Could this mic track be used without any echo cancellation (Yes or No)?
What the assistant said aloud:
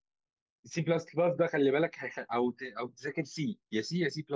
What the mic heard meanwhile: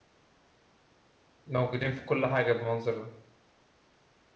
Yes